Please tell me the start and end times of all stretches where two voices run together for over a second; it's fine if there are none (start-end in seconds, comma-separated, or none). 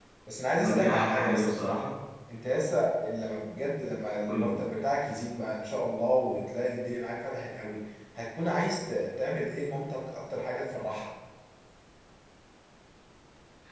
0.6-1.8